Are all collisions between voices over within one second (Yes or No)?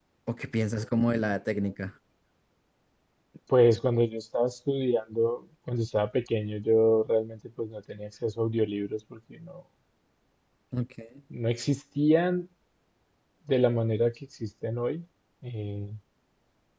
Yes